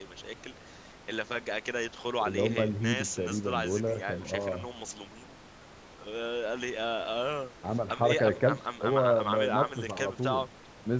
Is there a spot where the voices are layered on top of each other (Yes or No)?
Yes